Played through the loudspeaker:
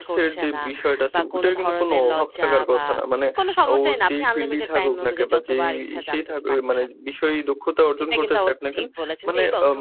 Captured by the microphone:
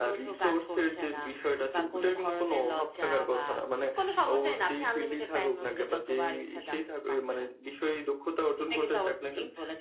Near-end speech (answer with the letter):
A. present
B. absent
B